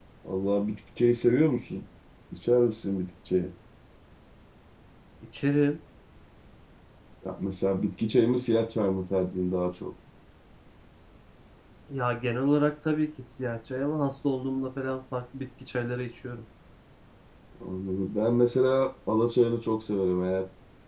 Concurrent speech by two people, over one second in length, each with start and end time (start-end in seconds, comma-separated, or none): none